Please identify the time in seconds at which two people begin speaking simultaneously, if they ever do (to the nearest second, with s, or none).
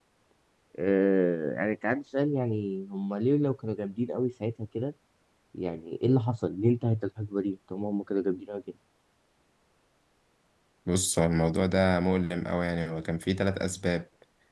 none